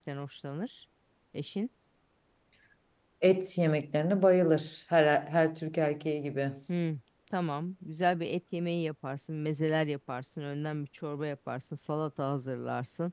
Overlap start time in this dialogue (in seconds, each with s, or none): none